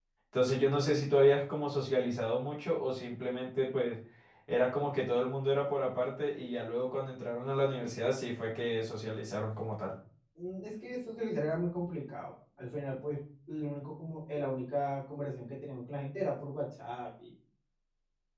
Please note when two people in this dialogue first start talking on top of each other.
none

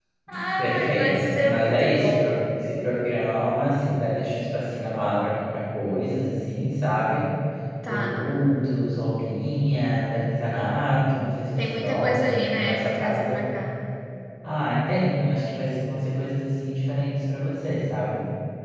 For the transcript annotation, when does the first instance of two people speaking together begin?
0.6 s

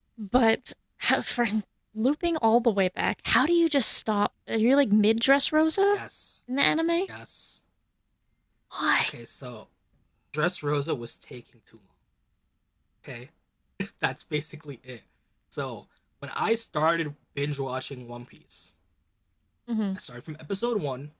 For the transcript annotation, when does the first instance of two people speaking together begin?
none

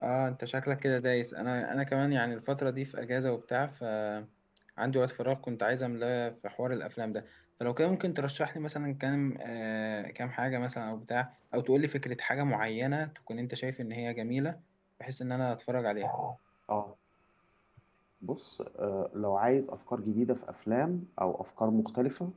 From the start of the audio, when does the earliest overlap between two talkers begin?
none

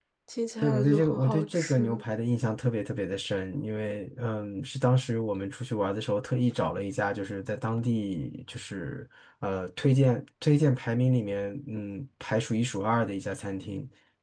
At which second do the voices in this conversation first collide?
0.6 s

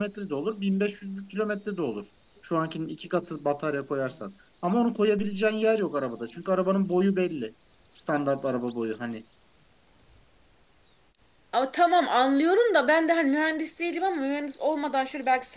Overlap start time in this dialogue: none

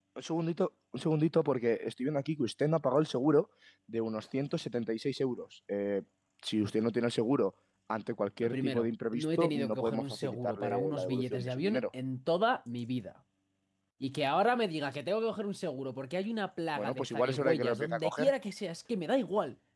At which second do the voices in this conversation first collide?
8.4 s

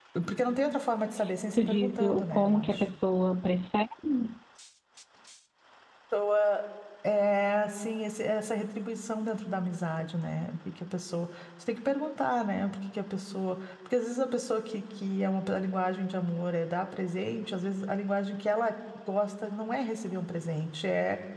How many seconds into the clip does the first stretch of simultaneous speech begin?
1.6 s

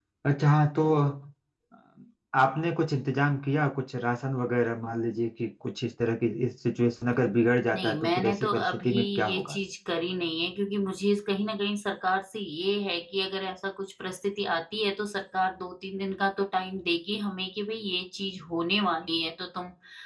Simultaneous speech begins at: 7.7 s

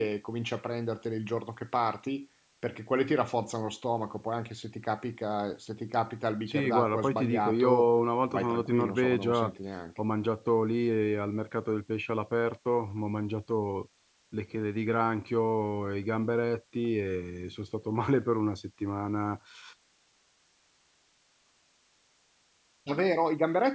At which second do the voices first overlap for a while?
6.5 s

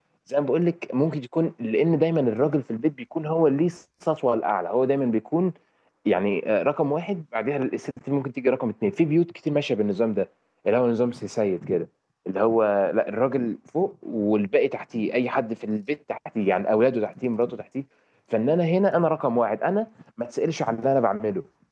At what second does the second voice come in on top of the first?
none

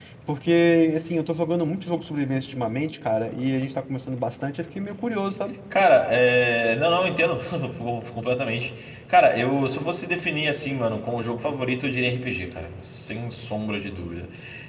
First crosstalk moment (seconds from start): none

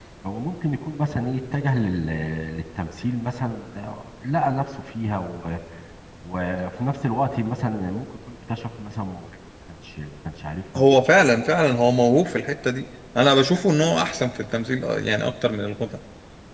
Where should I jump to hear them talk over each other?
none

